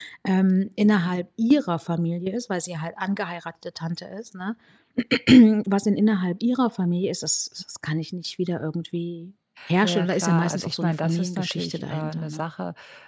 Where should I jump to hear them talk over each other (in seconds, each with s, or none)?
9.6 s